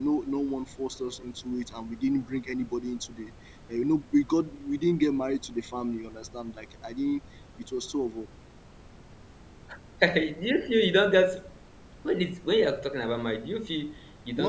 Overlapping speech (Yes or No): No